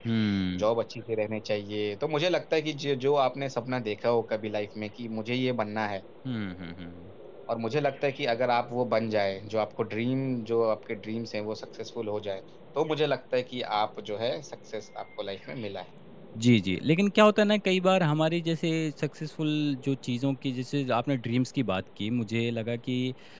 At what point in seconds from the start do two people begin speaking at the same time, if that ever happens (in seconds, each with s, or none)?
none